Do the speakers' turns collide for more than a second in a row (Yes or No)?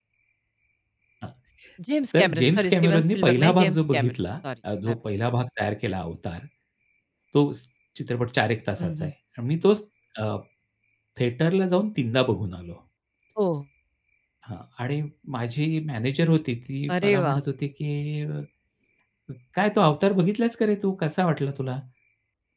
Yes